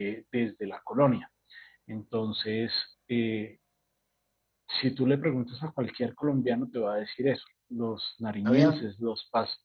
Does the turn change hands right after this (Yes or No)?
No